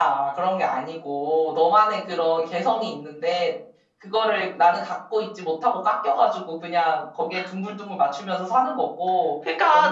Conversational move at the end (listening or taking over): taking over